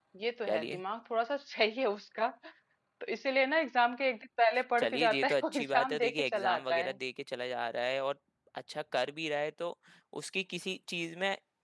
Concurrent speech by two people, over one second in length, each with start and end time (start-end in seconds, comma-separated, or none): 4.8-7.0